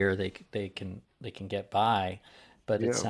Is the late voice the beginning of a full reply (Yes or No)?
No